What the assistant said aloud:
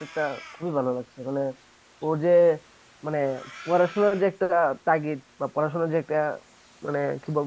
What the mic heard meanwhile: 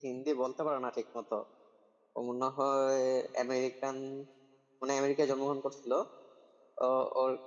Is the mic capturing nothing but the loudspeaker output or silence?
No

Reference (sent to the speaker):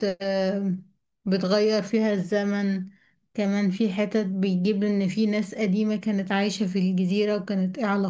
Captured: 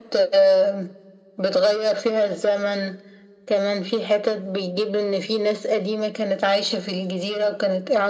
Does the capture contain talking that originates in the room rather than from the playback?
No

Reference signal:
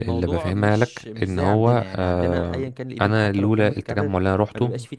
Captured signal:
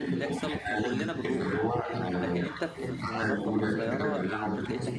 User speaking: Yes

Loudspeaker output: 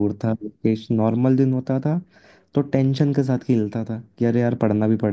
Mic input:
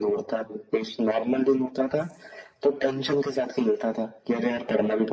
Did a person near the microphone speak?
No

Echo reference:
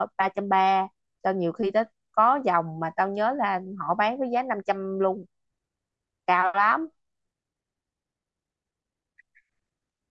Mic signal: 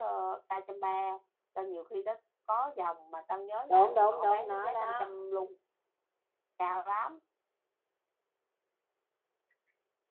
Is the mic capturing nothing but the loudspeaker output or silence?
No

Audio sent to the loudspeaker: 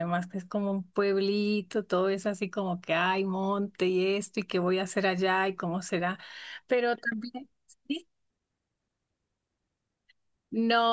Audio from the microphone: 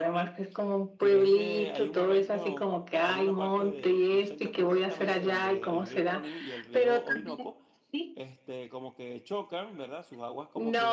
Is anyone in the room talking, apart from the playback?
Yes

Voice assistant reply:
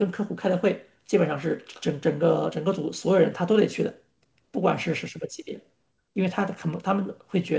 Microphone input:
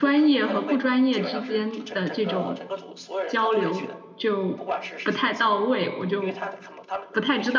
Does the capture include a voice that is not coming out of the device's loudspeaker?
Yes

